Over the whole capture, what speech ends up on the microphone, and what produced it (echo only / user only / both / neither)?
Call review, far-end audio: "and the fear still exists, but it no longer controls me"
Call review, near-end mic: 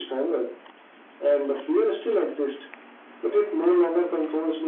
echo only